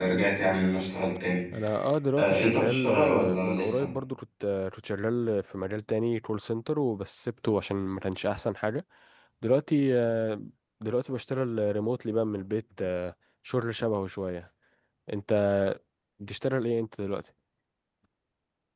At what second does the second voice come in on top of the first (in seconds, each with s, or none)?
2.2 s